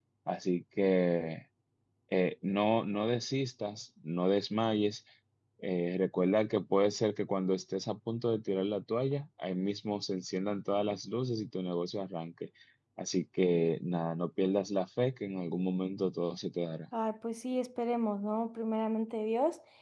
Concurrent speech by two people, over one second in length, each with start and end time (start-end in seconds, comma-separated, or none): none